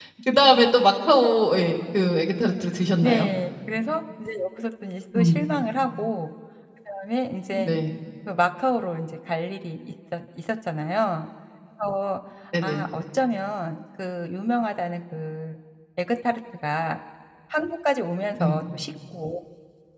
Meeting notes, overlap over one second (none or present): none